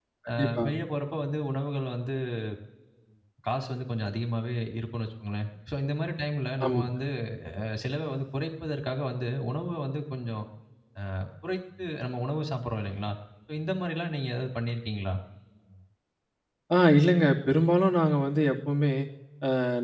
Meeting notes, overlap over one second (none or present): none